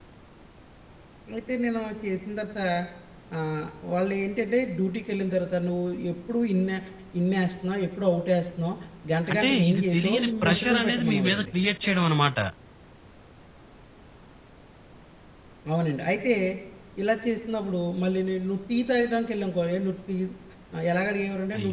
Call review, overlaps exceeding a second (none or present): present